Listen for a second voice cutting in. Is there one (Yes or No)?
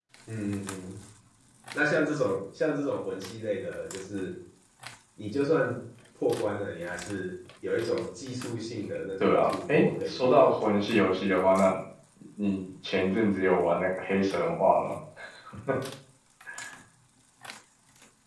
Yes